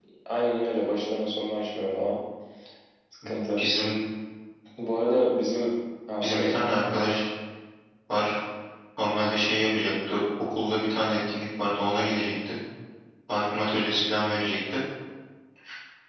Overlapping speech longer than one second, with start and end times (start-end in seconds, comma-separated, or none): none